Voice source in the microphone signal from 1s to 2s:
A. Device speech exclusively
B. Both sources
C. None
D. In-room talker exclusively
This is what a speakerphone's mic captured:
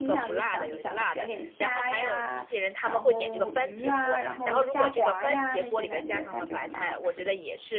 B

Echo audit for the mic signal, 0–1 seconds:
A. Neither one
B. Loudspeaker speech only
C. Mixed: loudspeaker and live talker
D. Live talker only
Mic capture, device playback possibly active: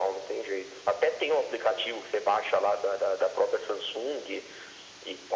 B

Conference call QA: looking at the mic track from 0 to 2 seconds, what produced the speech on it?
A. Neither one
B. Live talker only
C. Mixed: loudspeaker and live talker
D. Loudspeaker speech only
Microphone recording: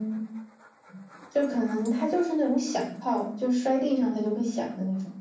D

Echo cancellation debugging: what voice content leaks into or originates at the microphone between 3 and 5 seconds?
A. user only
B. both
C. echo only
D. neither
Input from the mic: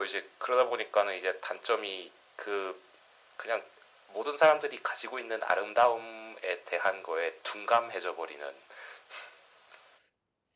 C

